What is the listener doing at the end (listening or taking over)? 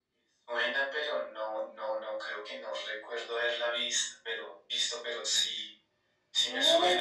taking over